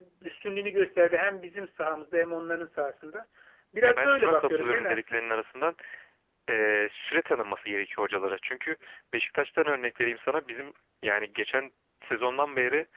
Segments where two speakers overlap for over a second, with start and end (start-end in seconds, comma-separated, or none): 3.8-5.2